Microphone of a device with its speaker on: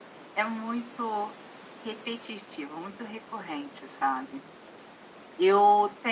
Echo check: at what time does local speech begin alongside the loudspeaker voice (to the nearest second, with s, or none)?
none